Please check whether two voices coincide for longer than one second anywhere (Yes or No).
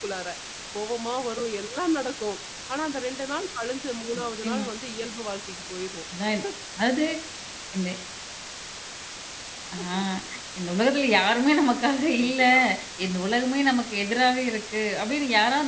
No